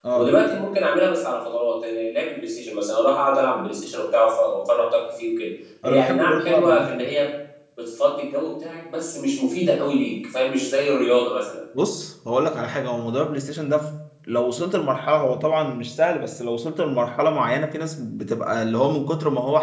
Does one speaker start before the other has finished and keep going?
Yes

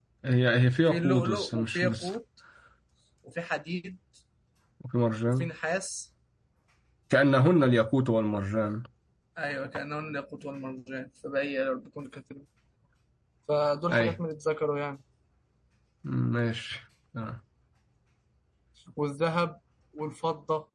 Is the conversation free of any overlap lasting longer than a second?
No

